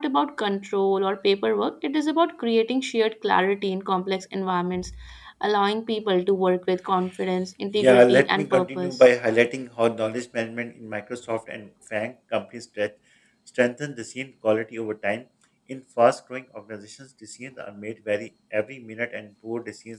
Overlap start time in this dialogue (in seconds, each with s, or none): 7.8 s